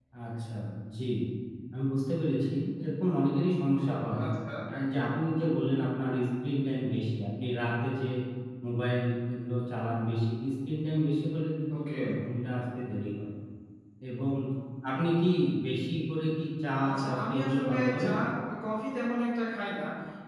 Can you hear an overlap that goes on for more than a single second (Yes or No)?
Yes